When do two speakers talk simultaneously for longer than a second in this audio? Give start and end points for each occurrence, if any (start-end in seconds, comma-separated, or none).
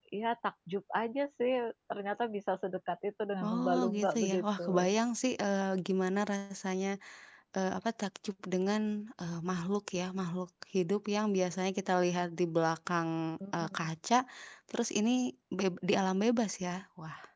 3.4-4.7